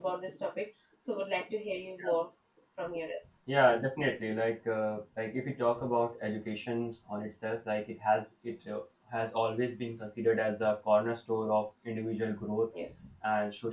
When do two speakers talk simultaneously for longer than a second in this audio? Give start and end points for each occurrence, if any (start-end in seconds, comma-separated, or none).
none